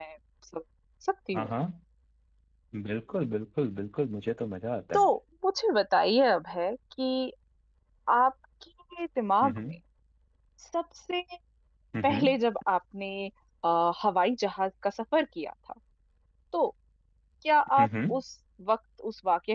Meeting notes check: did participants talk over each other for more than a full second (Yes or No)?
No